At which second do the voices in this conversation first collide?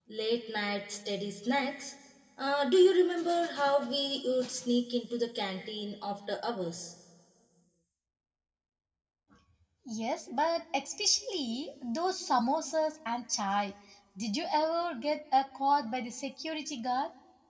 none

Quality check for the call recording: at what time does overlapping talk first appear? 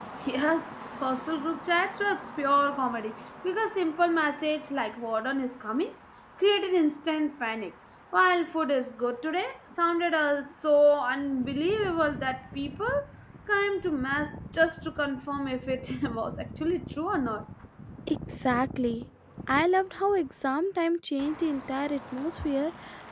none

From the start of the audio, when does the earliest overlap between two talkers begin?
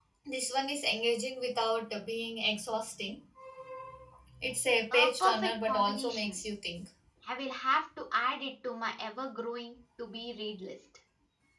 5 s

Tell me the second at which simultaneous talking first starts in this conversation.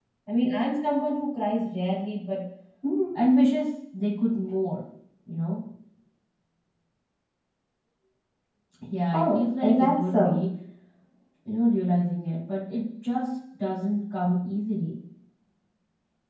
9 s

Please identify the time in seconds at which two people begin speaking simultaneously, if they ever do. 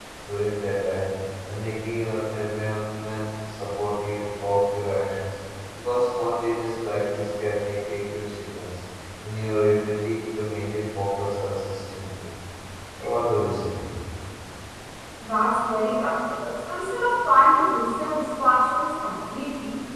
none

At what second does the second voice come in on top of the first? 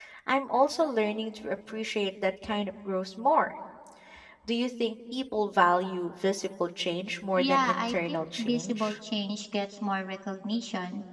7 s

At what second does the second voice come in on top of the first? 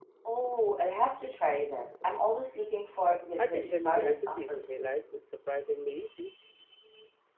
3 s

